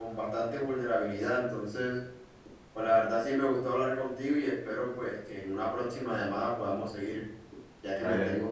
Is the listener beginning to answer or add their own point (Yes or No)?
Yes